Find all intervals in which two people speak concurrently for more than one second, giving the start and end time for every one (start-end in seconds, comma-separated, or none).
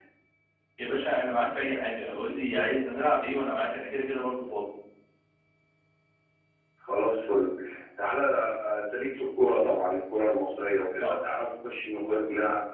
none